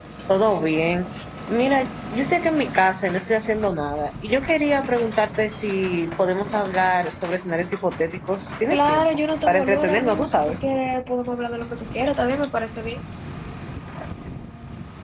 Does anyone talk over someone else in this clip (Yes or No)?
Yes